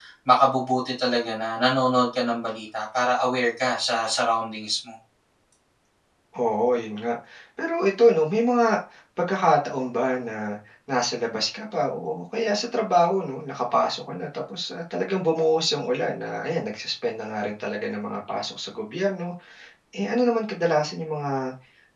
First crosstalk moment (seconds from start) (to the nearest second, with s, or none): none